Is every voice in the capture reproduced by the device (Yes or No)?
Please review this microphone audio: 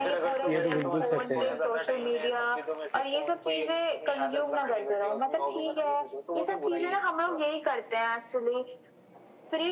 No